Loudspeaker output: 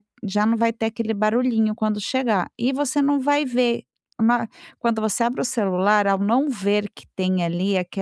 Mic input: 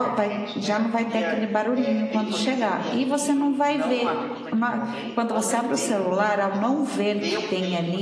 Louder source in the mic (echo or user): echo